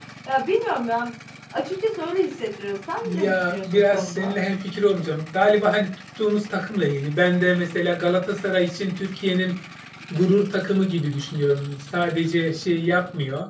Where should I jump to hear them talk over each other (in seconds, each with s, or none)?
3.0 s